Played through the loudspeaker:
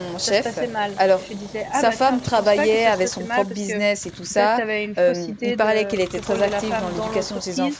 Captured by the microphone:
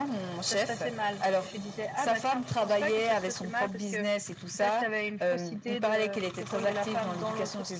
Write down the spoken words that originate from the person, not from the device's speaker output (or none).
none